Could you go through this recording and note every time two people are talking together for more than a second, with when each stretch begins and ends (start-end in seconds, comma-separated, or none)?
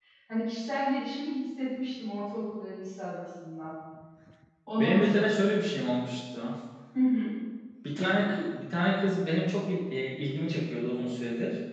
none